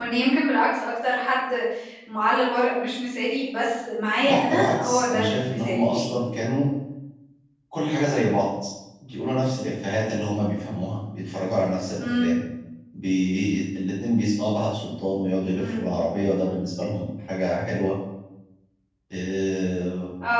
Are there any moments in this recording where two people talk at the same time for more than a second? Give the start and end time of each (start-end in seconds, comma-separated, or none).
4.2-6.1